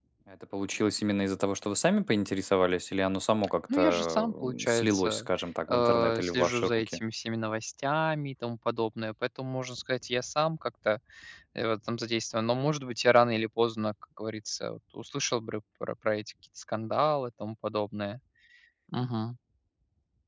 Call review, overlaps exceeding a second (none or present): present